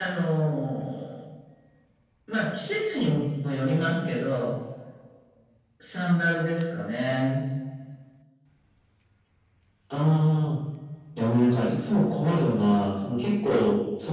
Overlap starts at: none

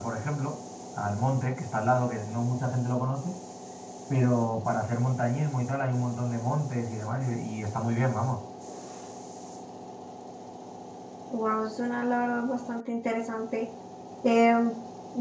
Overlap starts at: none

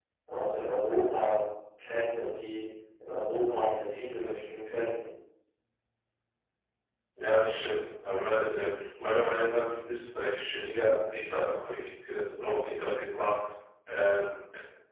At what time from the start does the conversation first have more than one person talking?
none

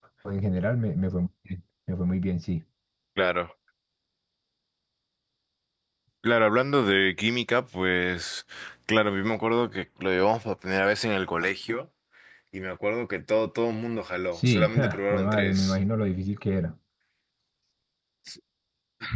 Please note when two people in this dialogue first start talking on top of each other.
14.3 s

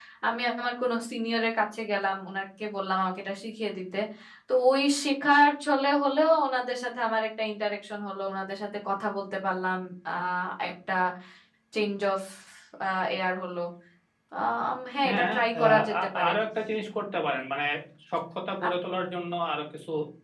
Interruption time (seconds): 15.0 s

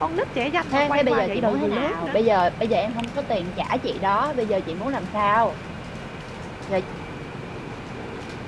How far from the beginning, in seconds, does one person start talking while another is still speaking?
0.7 s

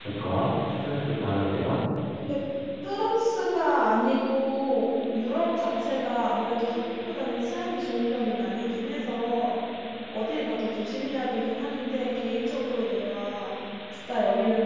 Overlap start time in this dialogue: none

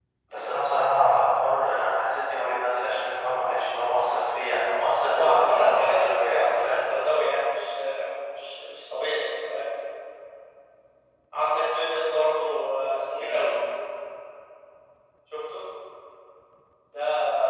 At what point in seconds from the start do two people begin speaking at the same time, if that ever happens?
5.1 s

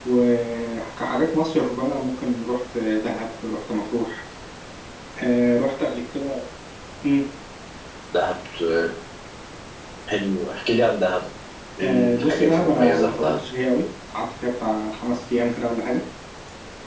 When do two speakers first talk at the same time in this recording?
11.8 s

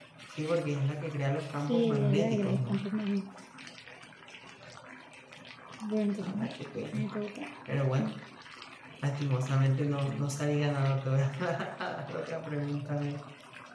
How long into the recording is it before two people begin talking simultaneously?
1.6 s

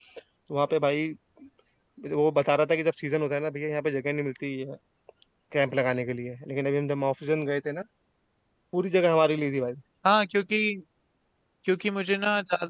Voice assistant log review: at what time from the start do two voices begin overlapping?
none

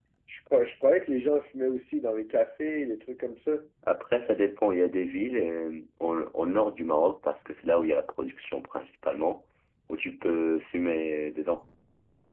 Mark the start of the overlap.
none

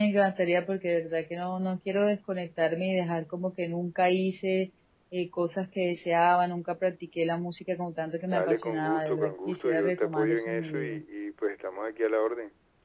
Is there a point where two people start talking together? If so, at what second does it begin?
8.3 s

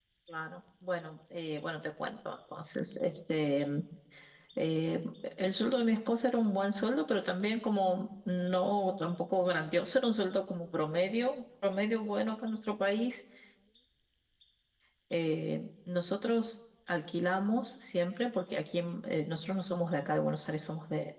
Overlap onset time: none

